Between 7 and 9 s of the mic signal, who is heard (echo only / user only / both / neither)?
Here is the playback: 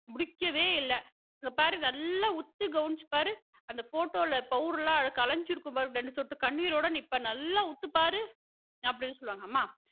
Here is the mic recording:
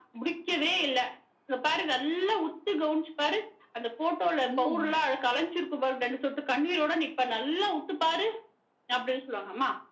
echo only